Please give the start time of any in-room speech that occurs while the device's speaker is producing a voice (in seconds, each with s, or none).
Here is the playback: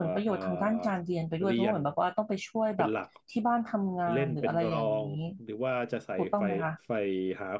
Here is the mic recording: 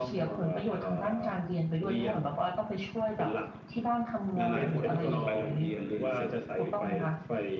4.3 s